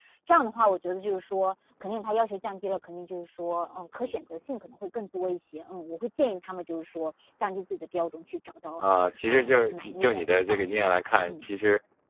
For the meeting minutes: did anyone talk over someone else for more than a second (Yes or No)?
Yes